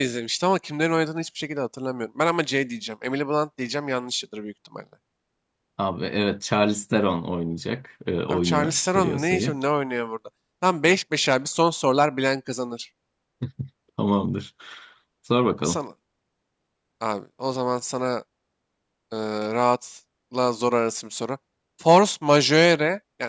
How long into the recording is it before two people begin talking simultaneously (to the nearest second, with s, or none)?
8 s